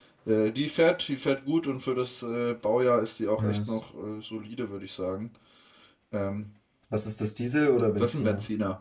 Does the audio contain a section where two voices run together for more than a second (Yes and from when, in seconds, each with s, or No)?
No